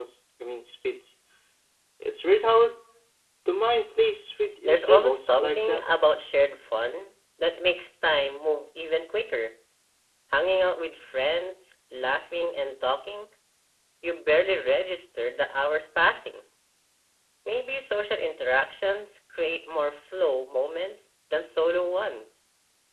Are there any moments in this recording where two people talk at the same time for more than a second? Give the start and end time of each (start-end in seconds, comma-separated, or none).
4.6-5.8